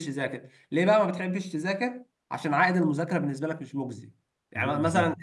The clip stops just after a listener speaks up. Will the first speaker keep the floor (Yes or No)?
Yes